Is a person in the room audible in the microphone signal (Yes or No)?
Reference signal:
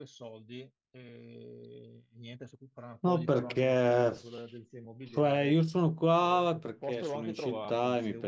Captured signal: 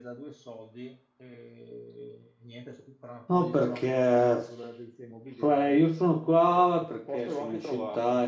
No